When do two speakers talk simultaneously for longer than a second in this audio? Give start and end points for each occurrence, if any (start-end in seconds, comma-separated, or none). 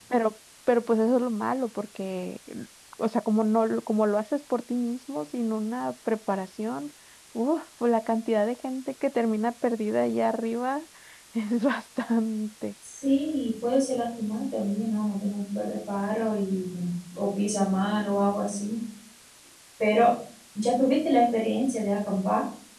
none